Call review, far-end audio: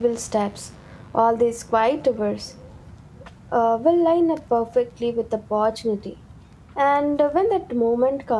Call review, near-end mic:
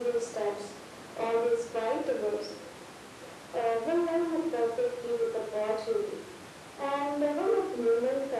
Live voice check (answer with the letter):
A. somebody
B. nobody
B